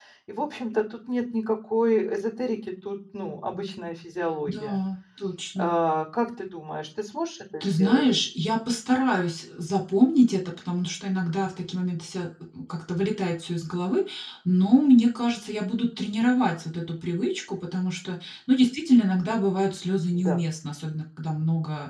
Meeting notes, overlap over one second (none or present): none